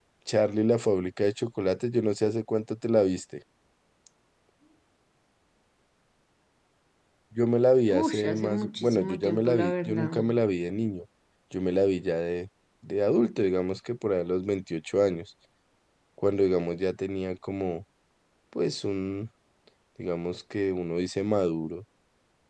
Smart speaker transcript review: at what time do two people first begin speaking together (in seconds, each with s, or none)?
7.9 s